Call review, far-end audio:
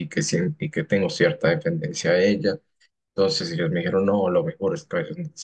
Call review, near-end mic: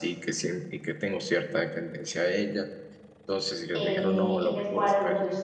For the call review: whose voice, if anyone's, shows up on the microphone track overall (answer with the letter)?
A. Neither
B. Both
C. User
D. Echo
B